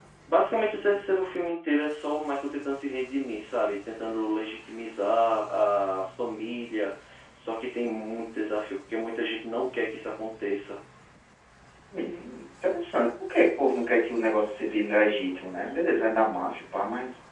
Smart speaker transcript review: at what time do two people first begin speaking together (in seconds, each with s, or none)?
none